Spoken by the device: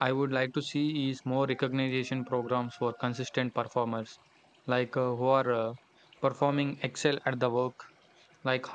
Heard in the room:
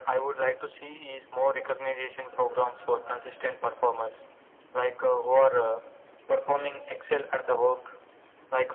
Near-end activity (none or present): none